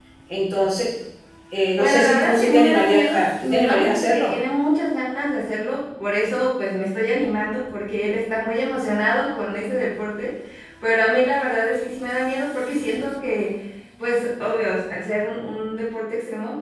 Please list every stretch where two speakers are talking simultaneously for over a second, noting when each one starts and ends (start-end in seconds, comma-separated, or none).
1.8-4.4